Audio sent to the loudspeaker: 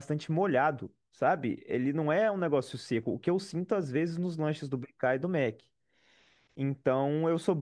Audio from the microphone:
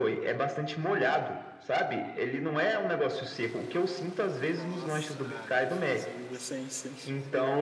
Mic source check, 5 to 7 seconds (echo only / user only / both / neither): both